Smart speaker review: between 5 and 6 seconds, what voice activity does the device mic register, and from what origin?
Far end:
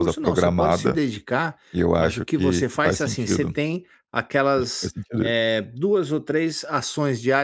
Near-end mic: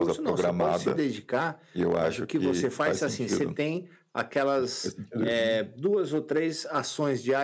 both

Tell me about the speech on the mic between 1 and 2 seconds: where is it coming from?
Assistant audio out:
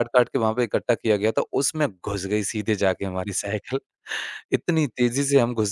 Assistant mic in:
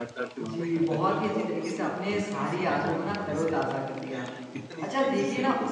both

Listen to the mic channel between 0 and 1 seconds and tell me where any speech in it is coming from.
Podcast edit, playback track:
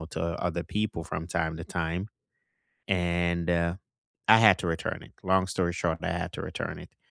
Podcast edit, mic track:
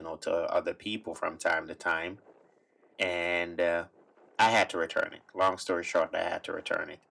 echo only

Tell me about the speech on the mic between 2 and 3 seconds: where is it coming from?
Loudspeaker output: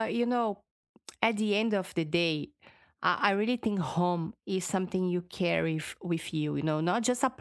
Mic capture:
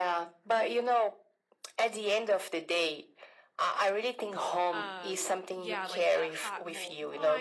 echo only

